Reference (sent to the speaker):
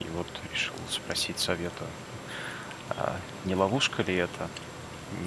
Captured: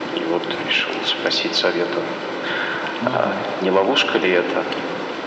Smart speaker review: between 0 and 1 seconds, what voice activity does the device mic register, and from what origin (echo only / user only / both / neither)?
echo only